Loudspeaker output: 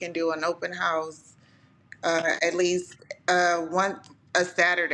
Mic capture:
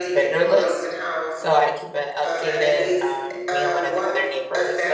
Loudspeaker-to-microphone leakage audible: Yes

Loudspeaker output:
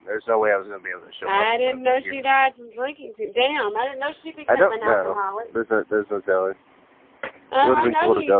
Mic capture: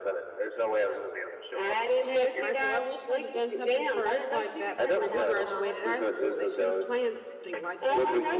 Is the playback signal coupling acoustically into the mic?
Yes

